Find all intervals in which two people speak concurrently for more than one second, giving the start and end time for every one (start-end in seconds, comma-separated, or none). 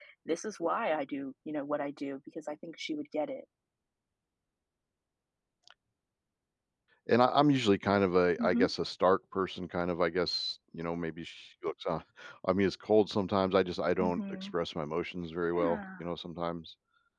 none